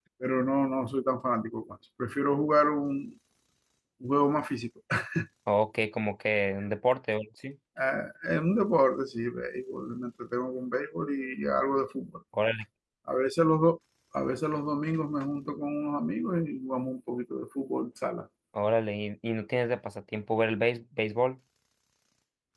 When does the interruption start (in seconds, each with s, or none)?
none